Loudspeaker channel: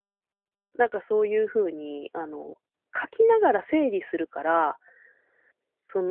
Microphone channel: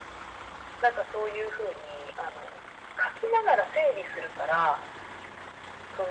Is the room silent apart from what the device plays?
Yes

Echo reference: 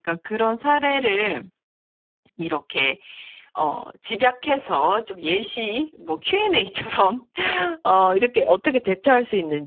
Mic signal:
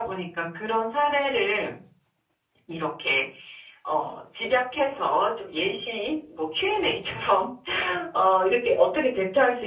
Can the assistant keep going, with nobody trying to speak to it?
Yes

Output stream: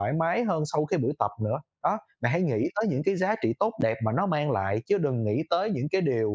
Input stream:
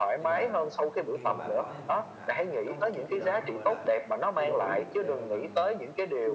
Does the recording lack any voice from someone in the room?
No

